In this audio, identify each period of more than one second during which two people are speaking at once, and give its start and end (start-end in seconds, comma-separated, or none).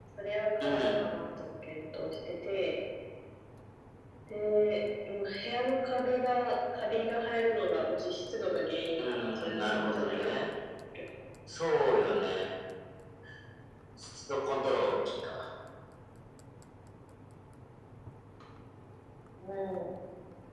9.0-10.5